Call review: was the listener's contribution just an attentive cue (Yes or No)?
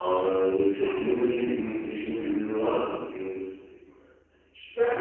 No